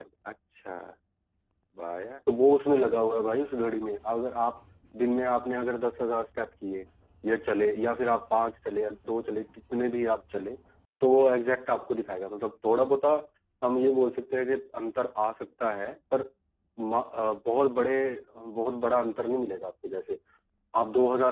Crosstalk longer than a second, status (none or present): none